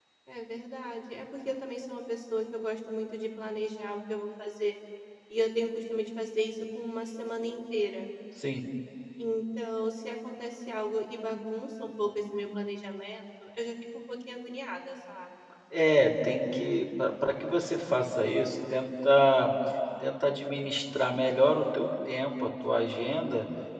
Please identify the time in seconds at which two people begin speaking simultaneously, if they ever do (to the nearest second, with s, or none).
none